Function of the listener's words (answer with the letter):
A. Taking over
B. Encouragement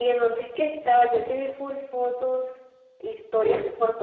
B